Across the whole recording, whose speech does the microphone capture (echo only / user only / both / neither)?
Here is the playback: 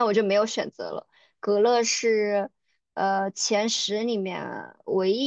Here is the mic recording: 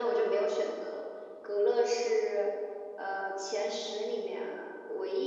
echo only